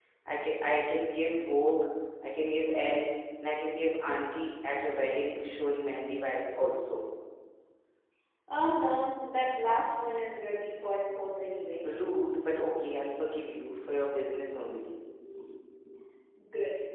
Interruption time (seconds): none

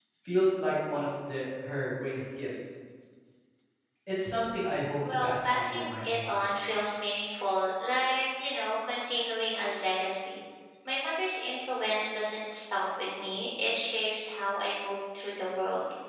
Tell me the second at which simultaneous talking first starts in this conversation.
5.0 s

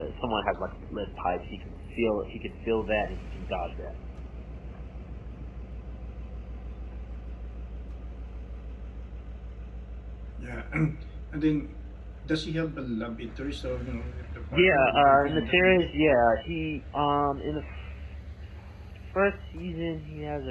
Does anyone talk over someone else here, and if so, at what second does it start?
14.5 s

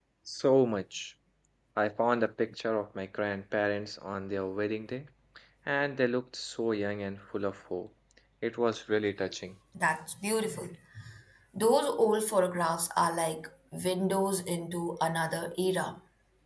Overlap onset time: none

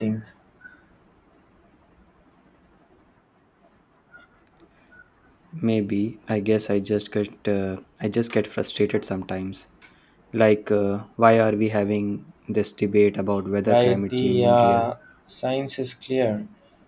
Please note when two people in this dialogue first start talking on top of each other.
13.7 s

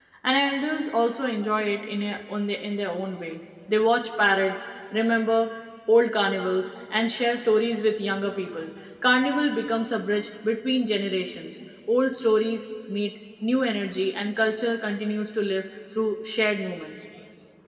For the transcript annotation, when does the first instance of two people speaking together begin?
none

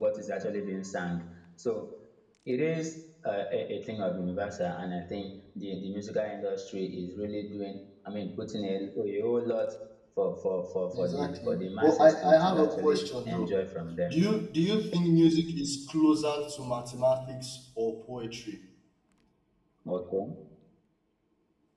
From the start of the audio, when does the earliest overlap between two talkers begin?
10.9 s

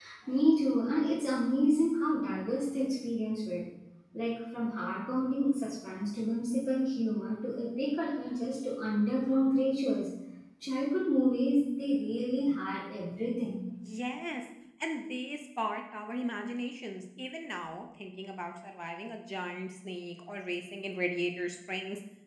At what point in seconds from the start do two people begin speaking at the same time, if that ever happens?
none

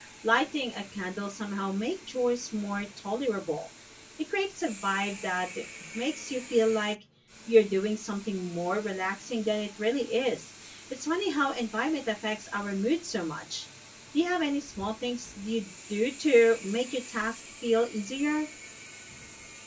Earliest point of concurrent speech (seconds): none

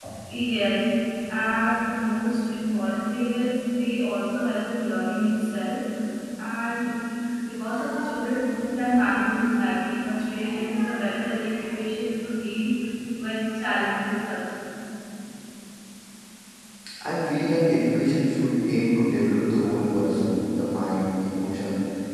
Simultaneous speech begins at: none

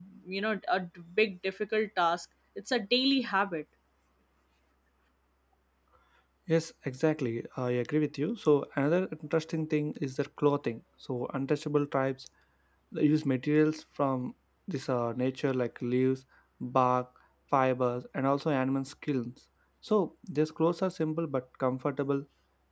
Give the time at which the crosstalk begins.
none

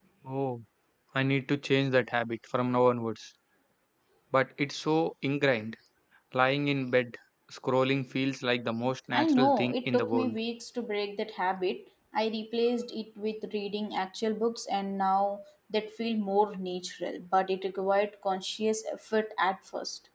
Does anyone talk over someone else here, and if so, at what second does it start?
9.1 s

